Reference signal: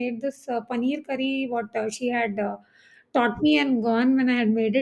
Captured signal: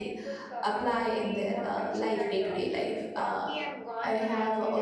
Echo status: present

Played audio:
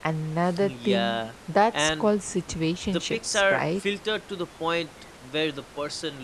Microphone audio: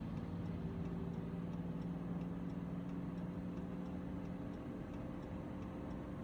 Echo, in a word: none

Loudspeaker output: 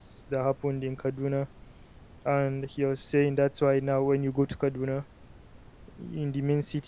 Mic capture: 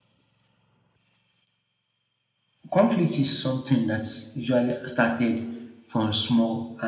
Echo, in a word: none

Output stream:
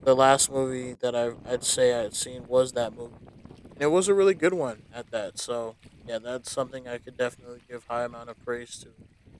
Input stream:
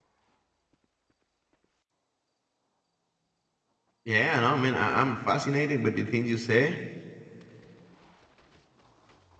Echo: none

